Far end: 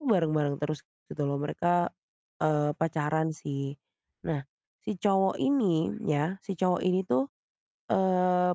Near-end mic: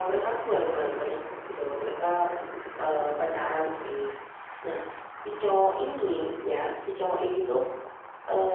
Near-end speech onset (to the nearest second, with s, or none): none